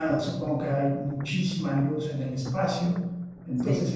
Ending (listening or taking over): listening